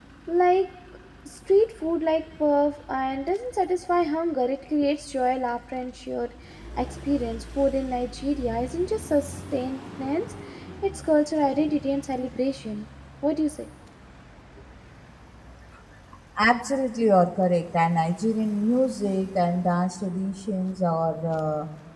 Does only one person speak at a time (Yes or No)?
Yes